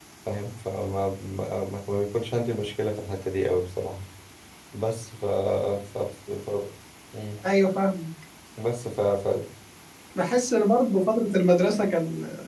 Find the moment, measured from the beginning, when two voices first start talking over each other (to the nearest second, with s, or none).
none